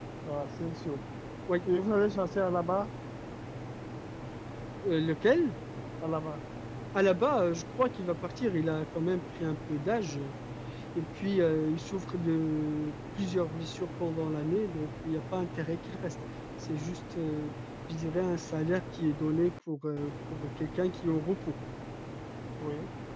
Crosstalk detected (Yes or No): No